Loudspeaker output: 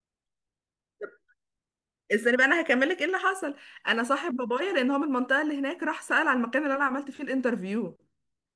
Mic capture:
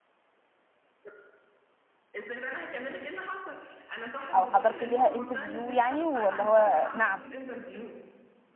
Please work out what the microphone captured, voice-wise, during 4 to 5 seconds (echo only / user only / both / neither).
both